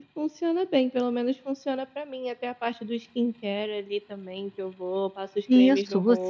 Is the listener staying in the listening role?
No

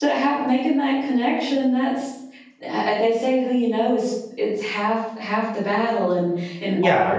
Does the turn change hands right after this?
No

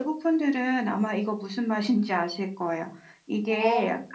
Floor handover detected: No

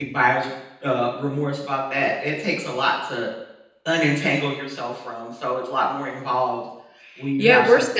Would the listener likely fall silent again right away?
No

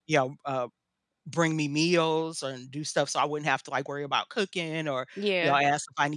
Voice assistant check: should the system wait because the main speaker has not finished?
Yes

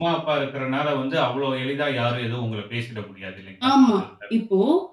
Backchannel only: No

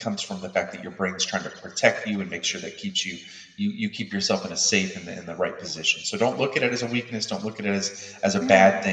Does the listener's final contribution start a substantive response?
No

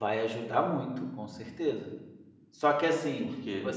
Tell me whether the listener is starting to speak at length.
No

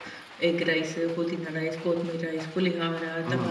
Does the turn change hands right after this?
Yes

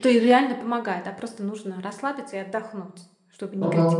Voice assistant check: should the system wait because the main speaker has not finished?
No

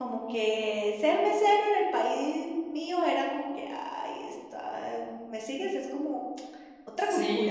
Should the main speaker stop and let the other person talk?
Yes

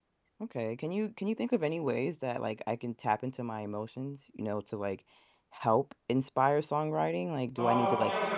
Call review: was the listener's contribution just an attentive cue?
No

